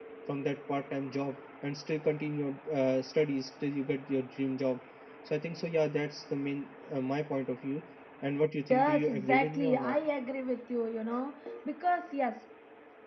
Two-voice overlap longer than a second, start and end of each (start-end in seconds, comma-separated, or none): 8.7-9.9